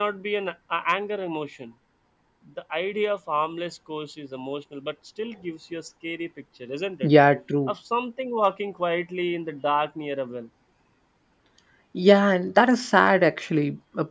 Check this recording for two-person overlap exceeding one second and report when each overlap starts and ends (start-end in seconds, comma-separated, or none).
none